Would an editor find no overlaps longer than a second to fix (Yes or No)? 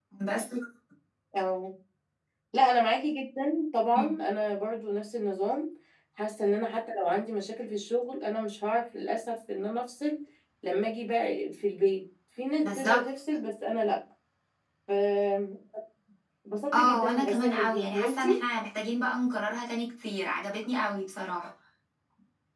No